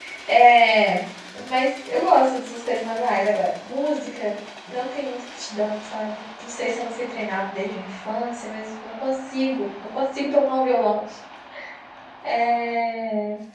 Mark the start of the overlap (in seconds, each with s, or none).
none